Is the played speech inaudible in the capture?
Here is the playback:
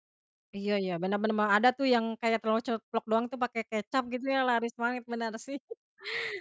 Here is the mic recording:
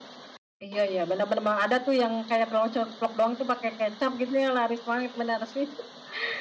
No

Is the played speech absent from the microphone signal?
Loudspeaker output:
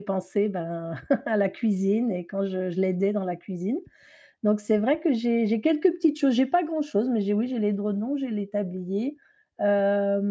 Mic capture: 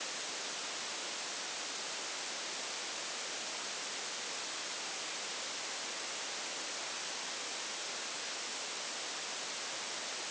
Yes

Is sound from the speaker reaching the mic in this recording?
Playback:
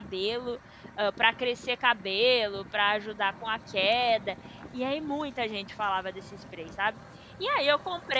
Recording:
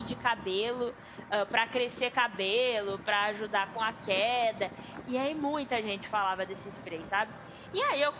Yes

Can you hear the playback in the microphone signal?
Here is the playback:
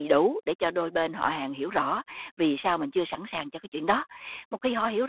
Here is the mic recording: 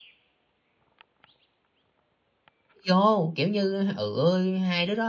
No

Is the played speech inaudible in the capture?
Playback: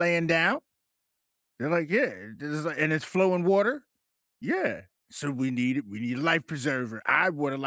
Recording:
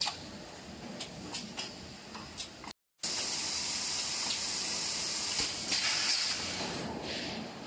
Yes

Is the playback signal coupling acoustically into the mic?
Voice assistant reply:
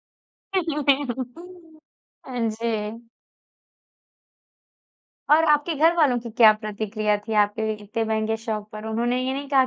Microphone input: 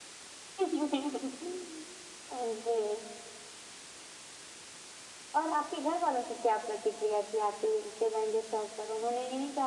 Yes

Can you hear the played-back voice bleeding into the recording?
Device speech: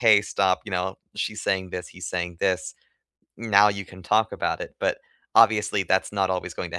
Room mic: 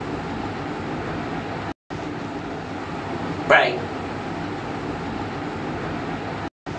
No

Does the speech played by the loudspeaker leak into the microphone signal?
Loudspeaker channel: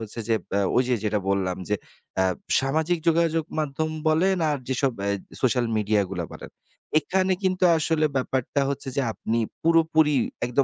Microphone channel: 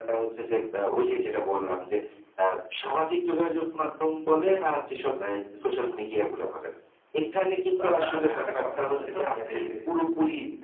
Yes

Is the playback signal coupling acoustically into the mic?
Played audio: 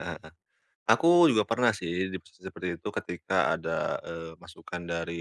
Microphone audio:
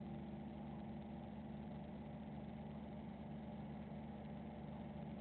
No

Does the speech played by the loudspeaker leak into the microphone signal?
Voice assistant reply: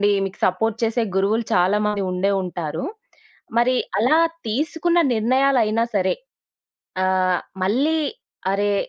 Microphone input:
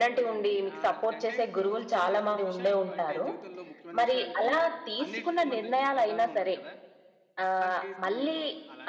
Yes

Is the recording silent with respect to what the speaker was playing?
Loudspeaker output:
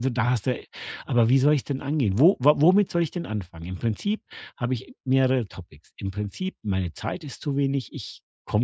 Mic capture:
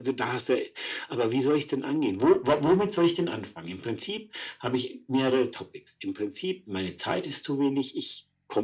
No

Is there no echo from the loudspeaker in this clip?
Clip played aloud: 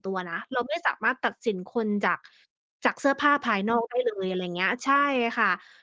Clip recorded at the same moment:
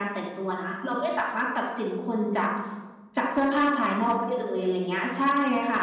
No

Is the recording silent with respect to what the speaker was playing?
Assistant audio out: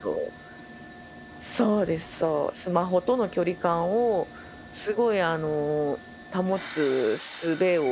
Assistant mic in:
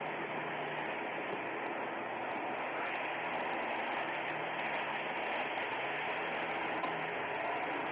Yes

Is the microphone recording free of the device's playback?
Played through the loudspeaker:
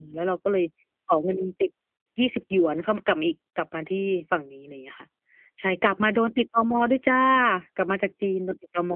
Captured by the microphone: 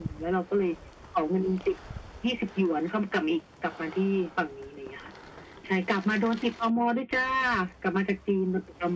No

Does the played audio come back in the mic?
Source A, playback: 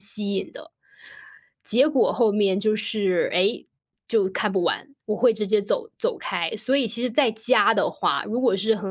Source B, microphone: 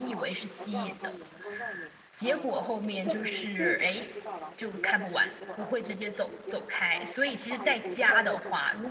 Yes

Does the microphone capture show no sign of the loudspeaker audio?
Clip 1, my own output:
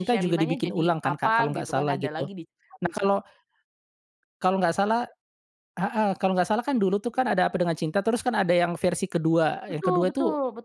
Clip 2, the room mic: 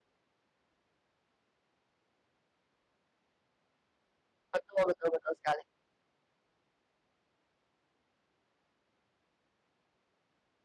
Yes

